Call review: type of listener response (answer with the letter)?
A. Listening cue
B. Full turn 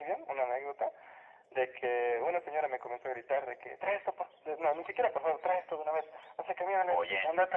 A